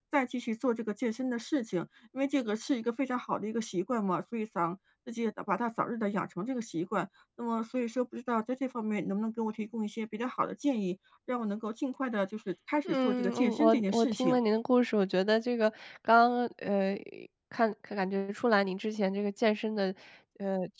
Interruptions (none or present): present